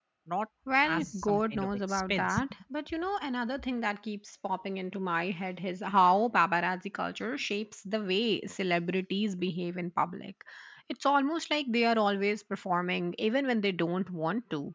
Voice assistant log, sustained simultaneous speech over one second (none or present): present